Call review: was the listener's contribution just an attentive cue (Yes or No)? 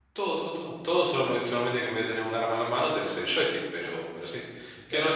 Yes